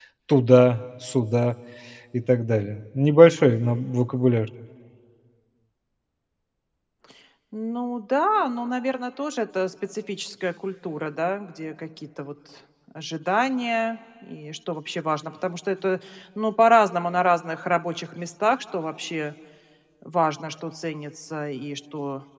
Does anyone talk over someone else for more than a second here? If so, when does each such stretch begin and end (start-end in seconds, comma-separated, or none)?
none